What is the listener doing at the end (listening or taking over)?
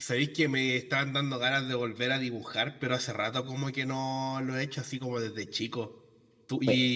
listening